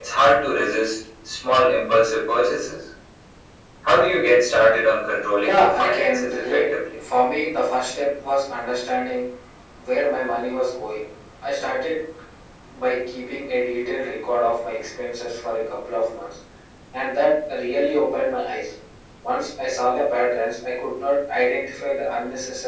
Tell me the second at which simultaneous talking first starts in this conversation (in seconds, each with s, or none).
5.4 s